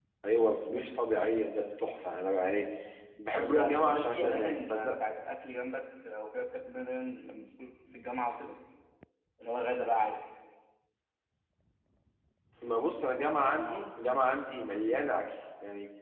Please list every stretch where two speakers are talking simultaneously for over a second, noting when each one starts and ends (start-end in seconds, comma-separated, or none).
3.3-4.9